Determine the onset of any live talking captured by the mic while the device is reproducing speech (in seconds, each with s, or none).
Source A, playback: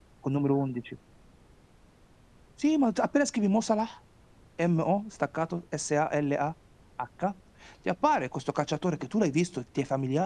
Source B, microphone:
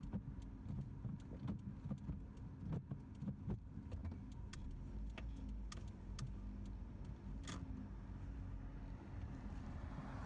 none